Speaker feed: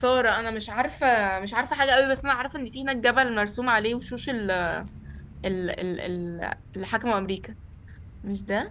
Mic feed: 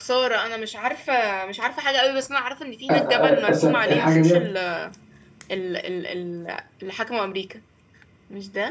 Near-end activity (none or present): present